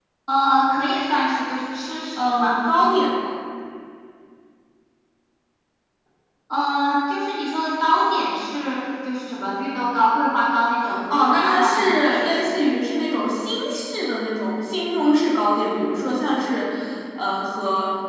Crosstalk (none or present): present